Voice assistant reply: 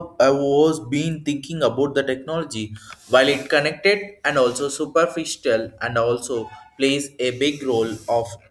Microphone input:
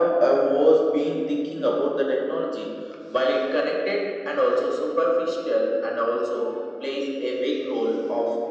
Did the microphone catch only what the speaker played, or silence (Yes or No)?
Yes